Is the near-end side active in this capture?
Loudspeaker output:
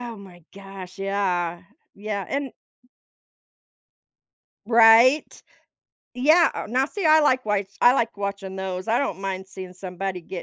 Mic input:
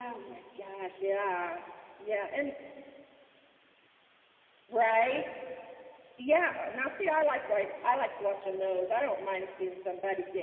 No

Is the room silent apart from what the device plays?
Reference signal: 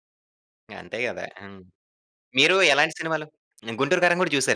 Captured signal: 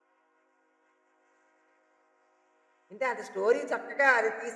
No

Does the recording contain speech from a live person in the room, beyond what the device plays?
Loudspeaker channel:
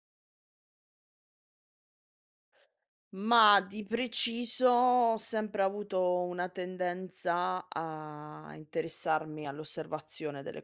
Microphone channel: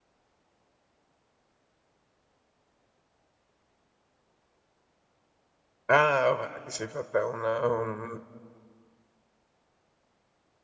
Yes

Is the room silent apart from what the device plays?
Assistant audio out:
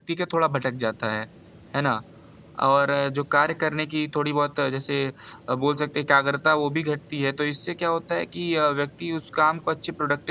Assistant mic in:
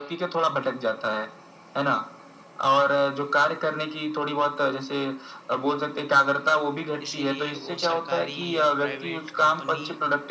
No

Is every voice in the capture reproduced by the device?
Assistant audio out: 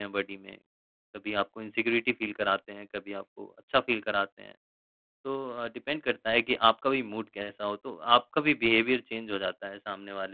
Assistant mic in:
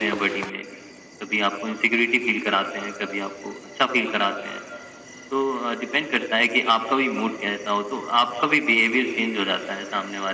Yes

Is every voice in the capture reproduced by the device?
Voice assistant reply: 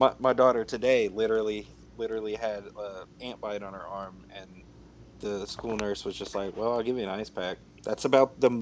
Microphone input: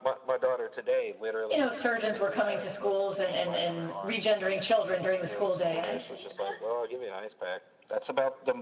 No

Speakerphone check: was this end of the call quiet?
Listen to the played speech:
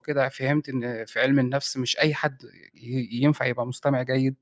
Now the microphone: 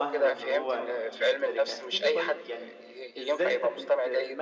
No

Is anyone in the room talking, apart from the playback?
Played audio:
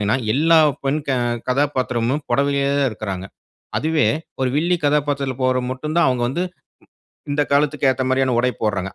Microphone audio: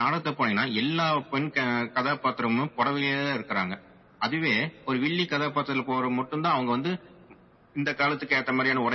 No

